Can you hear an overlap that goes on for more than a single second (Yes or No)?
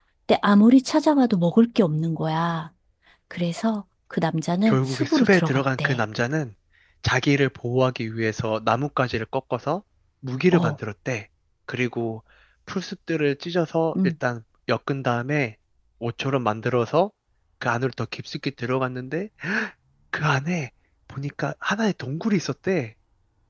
Yes